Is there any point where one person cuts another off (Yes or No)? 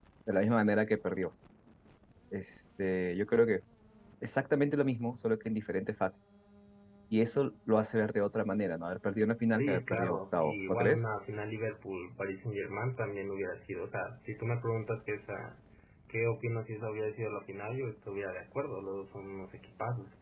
Yes